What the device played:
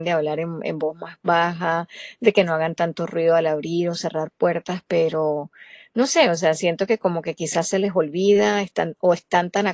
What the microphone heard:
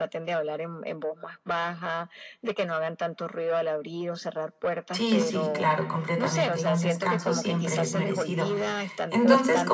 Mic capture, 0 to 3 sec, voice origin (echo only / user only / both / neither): echo only